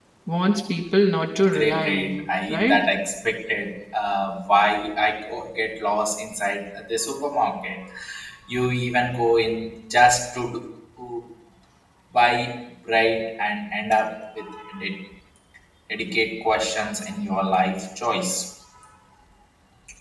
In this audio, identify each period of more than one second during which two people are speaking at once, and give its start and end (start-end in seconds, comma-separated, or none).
1.5-2.8